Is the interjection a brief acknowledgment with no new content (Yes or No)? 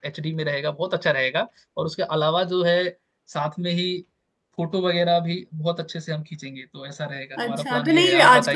No